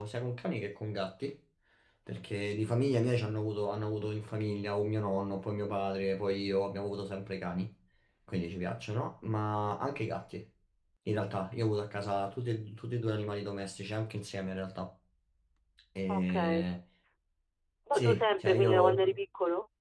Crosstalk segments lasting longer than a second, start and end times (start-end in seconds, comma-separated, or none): 17.9-19.2